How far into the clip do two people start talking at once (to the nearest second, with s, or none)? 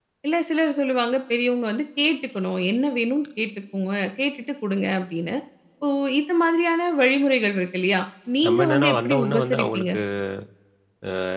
8 s